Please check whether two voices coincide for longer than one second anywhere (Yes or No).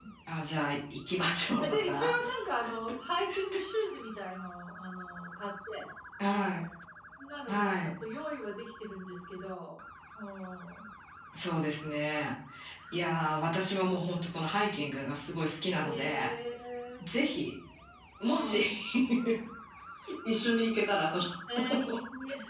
No